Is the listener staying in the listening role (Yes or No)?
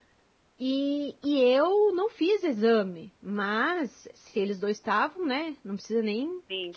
Yes